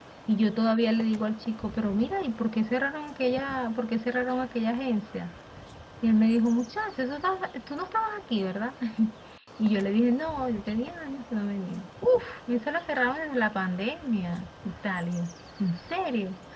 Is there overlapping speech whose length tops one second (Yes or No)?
No